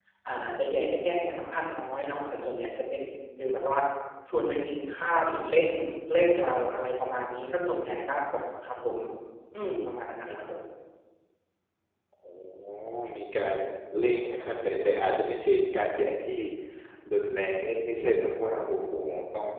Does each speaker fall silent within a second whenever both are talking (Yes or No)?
Yes